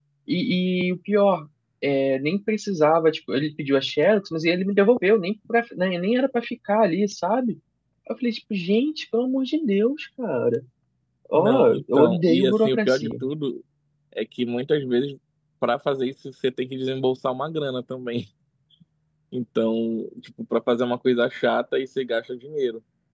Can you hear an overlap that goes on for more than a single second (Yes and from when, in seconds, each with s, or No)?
Yes, from 11.3 s